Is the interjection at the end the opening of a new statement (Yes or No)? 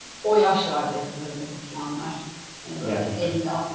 No